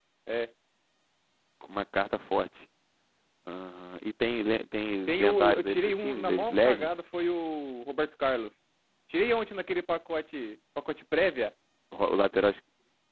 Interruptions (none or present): present